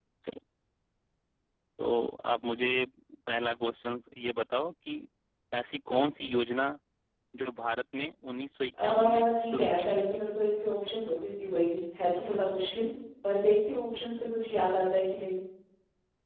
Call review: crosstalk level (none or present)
present